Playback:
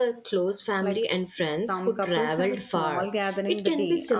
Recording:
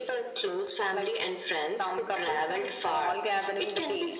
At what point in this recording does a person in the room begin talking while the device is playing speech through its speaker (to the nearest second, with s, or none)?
none